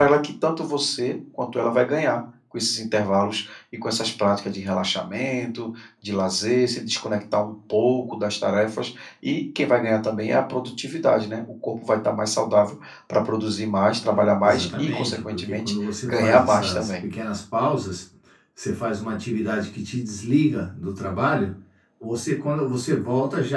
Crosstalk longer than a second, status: present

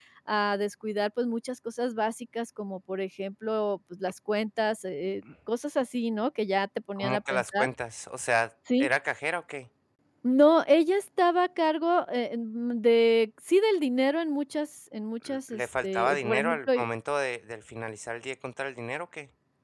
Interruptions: present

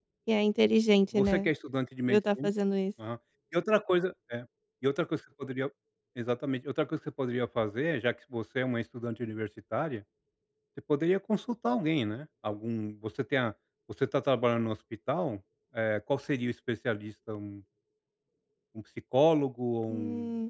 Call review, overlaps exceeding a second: none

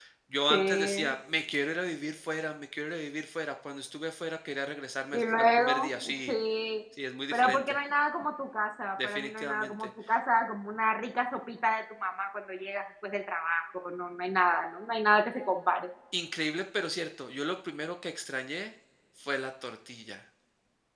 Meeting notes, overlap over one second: present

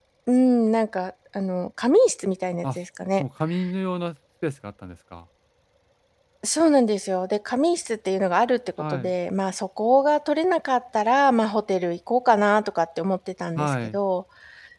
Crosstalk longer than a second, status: none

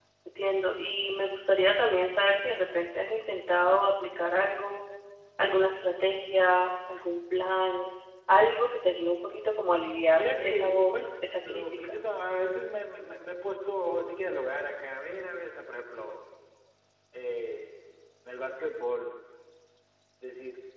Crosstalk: present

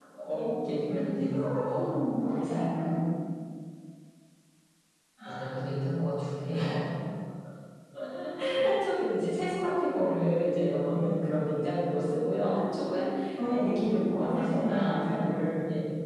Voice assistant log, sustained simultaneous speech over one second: present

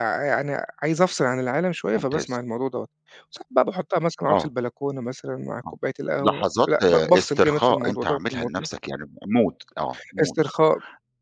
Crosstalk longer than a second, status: present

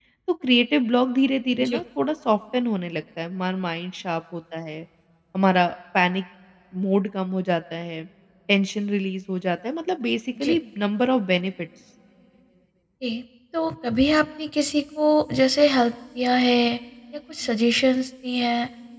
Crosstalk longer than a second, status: none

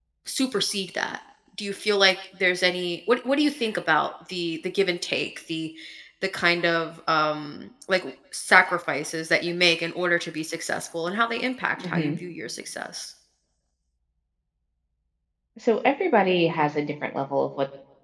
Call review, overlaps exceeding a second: none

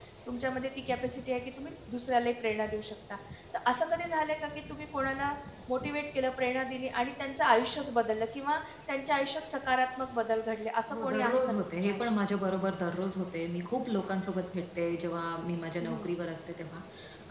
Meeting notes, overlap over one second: present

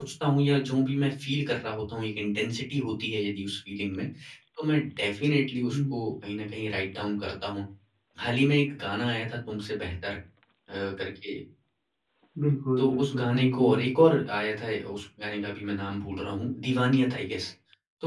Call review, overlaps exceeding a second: present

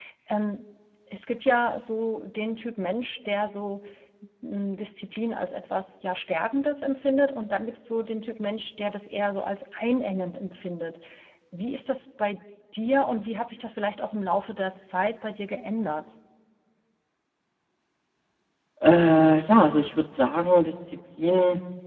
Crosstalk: none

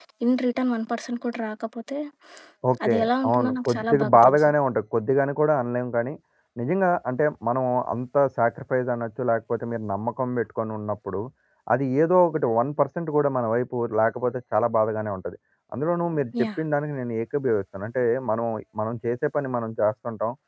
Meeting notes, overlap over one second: present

